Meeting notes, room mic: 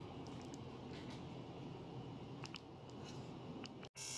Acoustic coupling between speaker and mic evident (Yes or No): No